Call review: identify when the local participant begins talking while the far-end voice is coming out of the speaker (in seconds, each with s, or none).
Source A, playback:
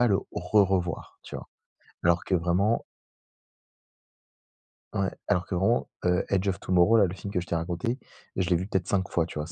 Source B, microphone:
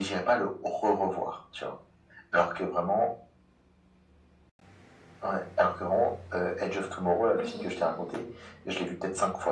7.4 s